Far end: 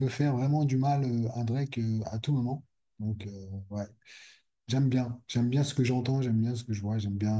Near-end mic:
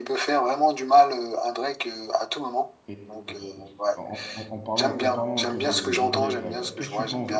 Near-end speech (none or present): present